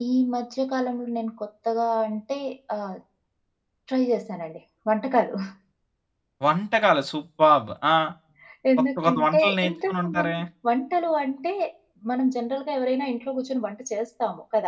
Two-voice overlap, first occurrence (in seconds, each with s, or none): 9.0 s